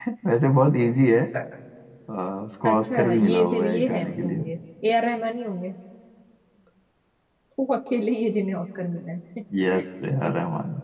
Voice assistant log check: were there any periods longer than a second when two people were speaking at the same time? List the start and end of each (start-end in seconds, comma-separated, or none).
2.6-4.5